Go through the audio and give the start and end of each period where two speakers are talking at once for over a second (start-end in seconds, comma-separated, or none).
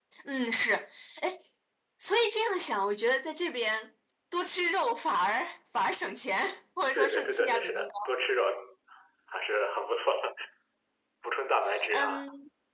6.9-8.1